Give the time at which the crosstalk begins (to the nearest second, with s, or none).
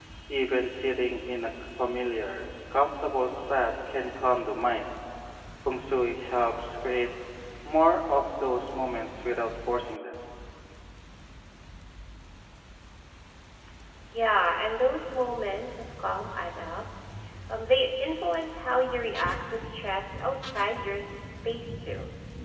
none